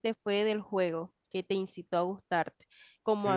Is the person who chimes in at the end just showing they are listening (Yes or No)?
Yes